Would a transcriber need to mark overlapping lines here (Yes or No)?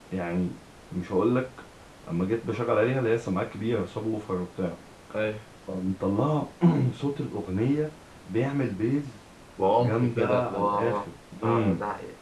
Yes